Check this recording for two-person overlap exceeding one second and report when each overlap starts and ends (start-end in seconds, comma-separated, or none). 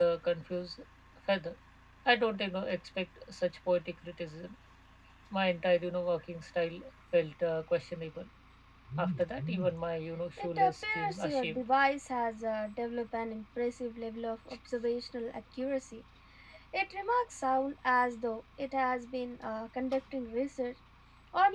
10.4-11.6